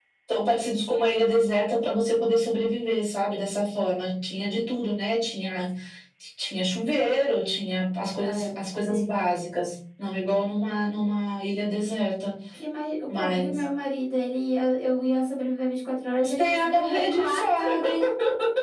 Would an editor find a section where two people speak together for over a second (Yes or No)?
Yes